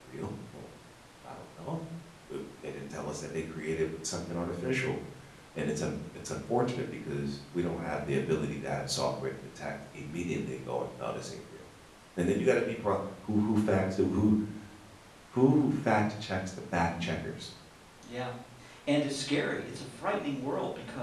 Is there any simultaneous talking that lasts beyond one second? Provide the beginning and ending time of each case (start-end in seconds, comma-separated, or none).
none